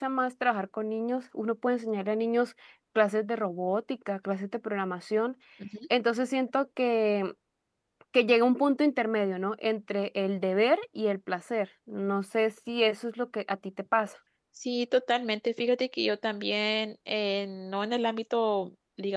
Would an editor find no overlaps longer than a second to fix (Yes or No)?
Yes